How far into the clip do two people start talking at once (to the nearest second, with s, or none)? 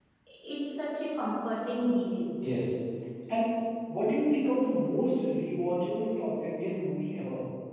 none